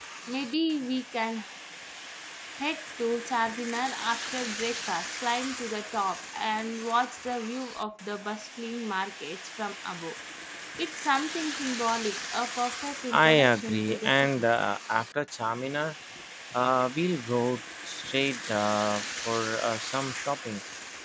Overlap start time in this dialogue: 13.1 s

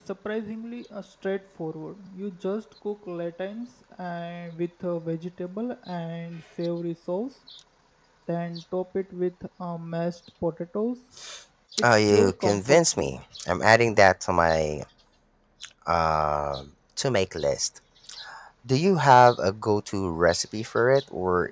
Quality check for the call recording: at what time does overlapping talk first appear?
11.8 s

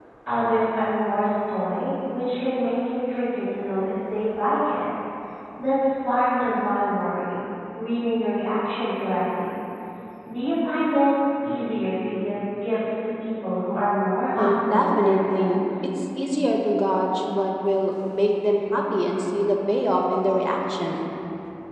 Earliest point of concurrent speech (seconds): 14.4 s

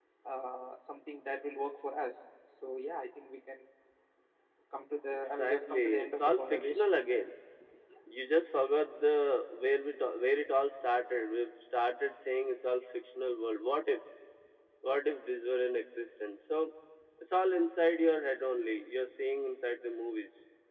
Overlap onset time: 5.2 s

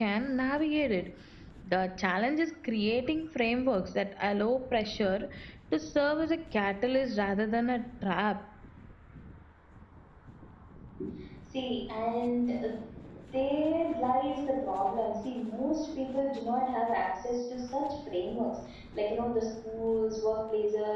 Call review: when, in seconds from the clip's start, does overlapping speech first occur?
none

